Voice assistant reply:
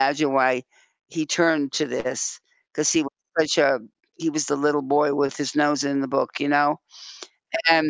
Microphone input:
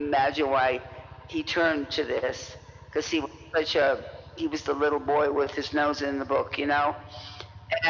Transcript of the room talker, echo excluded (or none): none